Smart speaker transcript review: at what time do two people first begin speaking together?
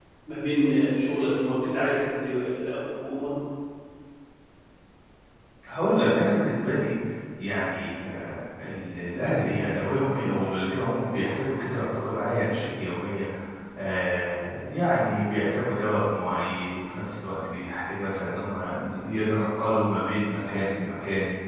none

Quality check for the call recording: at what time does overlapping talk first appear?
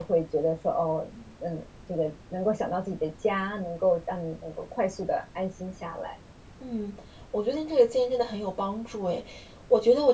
none

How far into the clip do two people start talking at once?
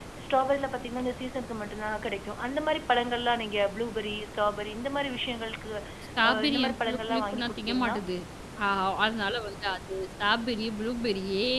6 s

